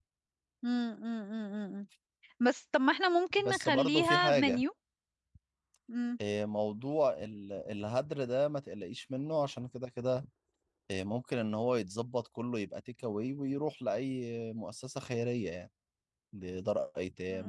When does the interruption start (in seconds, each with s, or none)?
3.4 s